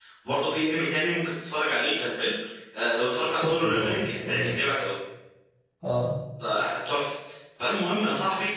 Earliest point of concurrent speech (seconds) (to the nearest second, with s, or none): 3 s